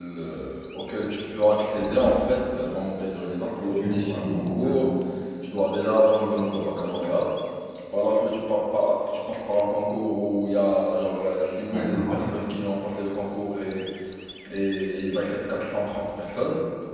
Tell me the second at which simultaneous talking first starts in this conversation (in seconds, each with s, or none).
3.6 s